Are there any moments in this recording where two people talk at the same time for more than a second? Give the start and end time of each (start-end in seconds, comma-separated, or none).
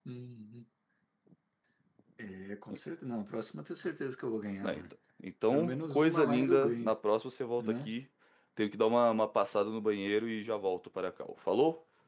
5.5-6.9